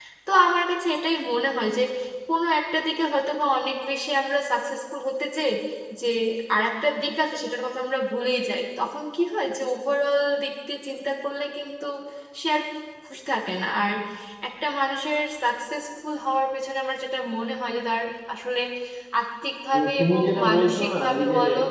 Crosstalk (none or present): present